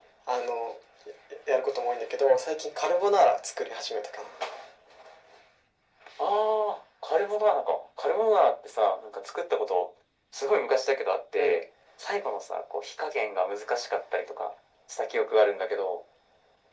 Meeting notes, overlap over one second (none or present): none